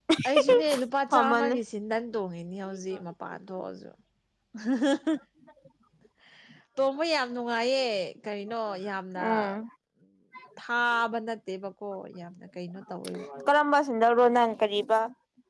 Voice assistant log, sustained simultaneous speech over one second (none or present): none